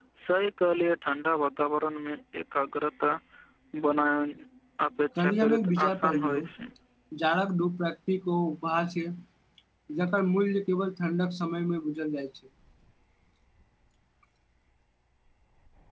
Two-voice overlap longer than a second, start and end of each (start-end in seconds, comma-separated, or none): 5.2-6.4